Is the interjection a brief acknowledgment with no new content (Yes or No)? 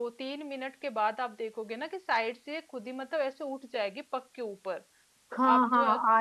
No